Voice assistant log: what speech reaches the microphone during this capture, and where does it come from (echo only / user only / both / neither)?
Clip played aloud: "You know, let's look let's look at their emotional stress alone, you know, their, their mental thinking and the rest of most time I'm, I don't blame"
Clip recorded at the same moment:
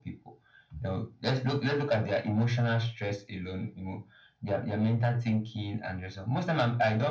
echo only